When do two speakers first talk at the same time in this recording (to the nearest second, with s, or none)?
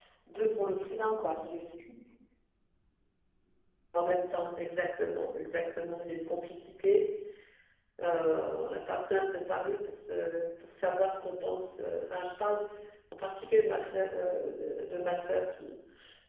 none